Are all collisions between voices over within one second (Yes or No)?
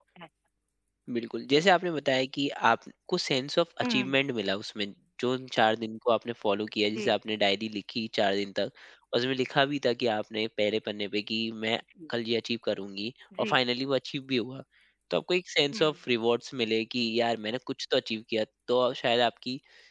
Yes